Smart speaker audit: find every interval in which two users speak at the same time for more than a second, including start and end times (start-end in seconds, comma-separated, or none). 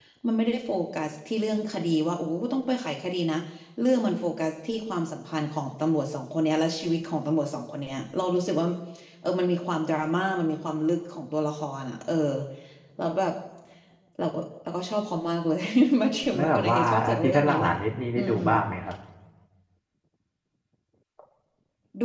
16.3-17.7